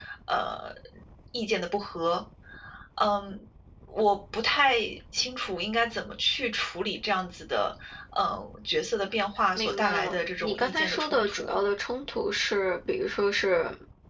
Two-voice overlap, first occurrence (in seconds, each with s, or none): 9.6 s